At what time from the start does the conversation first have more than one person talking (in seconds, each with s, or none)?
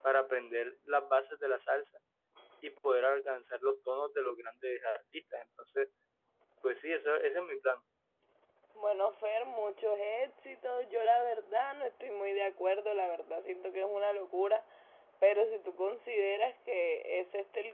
none